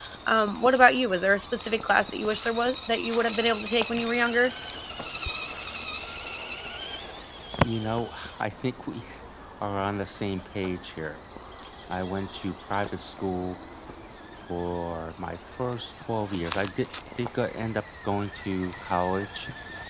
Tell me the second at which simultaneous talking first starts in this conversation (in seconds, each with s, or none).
none